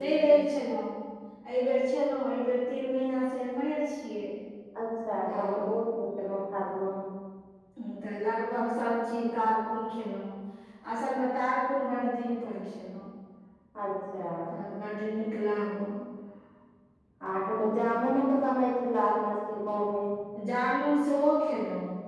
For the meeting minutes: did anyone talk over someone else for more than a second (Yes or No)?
No